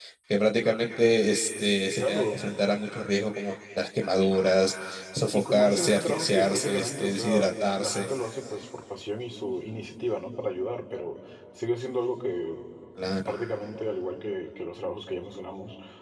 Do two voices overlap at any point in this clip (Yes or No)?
Yes